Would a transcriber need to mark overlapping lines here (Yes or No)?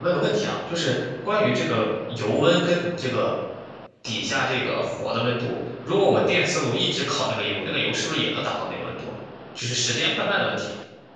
No